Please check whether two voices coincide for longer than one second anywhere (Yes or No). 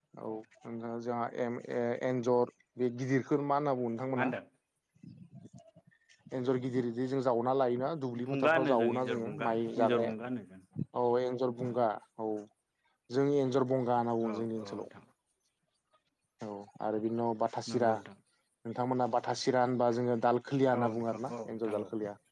Yes